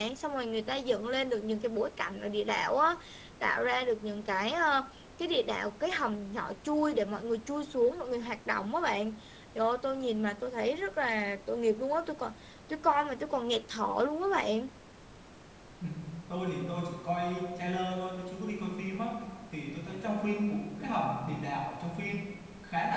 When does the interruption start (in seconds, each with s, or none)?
none